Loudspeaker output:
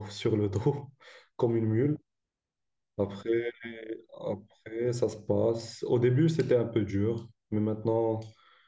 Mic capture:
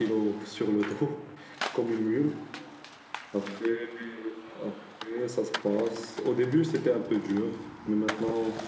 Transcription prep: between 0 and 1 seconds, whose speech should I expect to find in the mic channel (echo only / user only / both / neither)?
echo only